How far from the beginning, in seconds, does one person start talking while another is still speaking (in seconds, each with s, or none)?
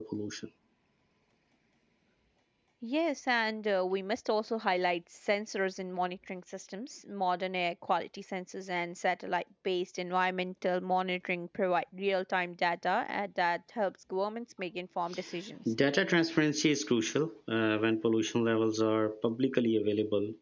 none